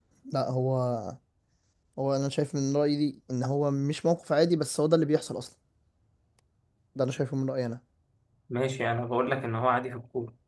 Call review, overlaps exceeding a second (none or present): none